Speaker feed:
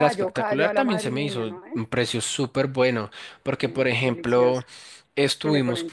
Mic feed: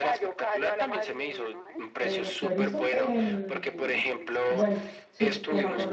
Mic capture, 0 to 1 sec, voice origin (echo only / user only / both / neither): echo only